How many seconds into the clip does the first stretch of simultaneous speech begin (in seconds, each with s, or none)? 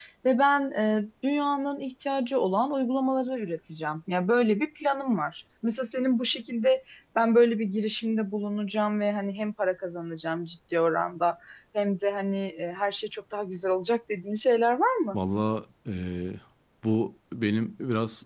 none